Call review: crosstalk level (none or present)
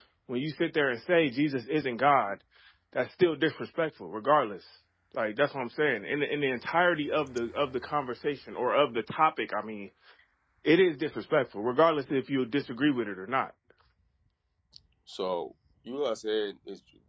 none